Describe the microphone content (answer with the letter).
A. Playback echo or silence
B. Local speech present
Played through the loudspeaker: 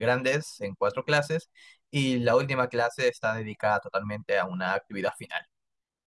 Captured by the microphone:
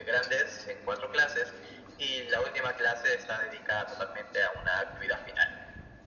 A